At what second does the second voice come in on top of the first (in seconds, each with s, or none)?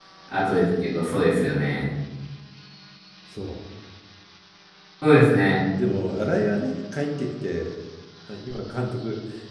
none